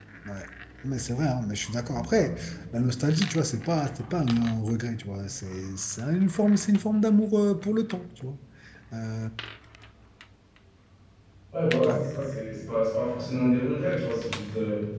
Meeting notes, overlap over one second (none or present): none